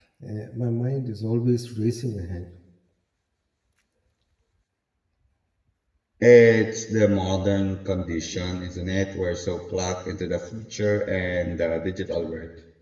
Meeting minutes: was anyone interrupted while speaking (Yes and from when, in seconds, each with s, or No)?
No